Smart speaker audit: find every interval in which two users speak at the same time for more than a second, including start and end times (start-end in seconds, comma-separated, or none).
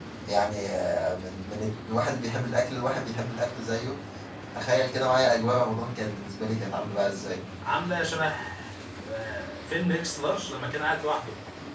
none